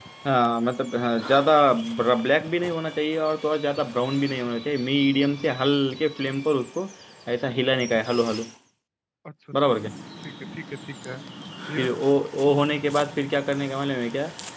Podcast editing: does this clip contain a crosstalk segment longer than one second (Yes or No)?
No